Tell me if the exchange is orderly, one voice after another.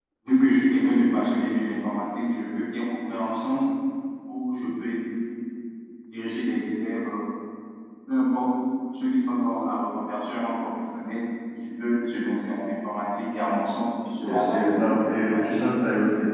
No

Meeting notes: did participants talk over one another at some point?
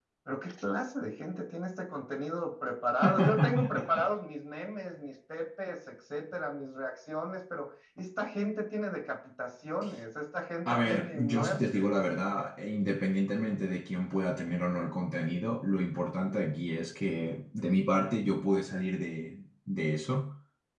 Yes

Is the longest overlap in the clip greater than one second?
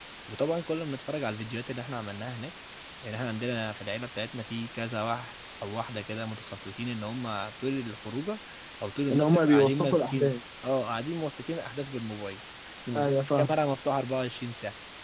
Yes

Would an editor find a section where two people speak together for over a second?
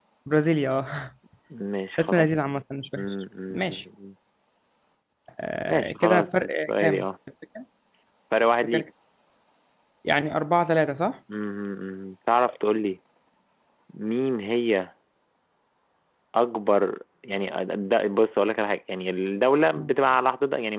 Yes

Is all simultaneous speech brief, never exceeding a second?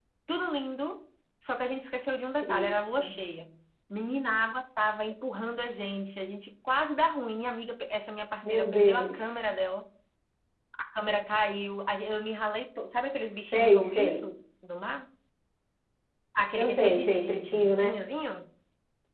No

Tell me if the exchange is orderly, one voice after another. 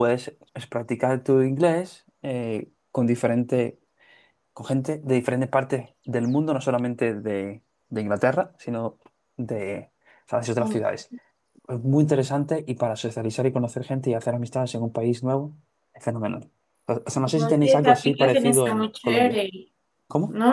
No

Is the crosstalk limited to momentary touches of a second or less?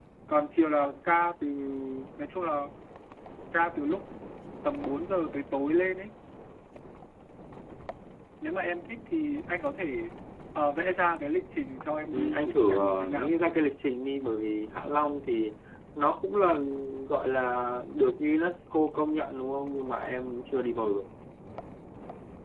No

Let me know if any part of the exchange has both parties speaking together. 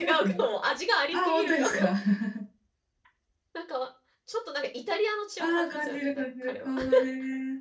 Yes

